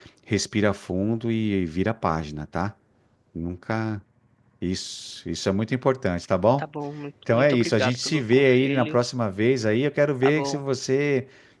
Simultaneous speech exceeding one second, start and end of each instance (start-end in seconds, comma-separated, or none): 7.3-9.0